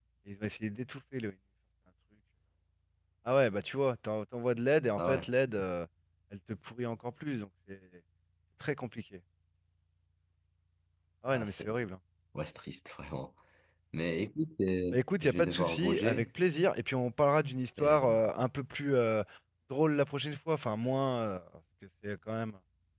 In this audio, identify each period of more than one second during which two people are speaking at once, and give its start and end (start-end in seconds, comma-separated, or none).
14.9-16.3